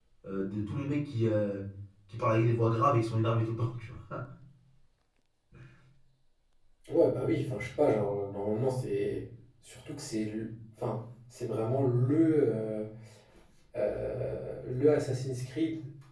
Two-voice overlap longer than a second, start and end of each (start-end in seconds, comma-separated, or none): none